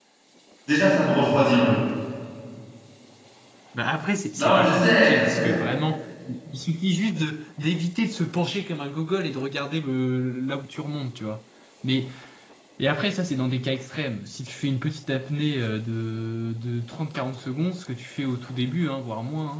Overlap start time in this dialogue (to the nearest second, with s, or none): 4 s